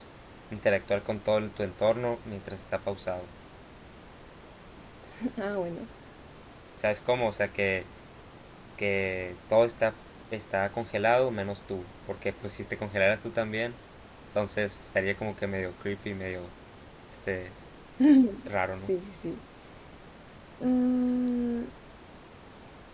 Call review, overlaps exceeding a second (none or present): none